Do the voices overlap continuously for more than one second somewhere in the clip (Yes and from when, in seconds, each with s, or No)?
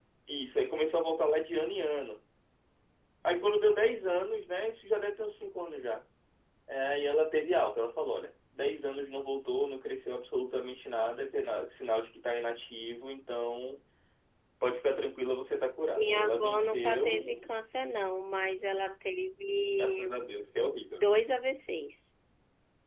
Yes, from 16.0 s